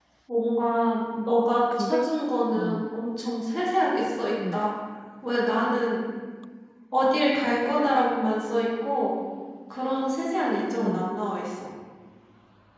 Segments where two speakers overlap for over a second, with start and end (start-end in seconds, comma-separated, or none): none